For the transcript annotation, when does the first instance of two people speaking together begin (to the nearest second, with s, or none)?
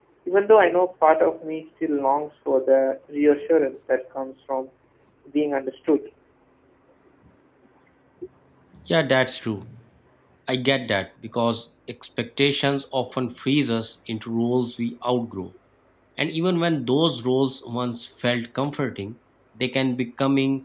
none